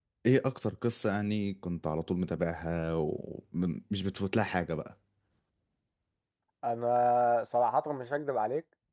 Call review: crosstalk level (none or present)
none